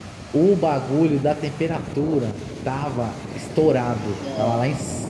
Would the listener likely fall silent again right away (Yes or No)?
Yes